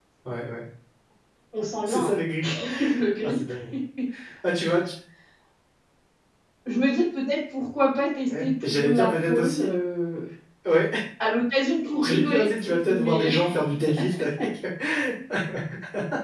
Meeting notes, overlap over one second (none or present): present